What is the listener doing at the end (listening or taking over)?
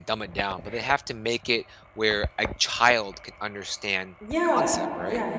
taking over